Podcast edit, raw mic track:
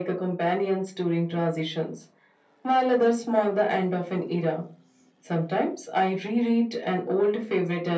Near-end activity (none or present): none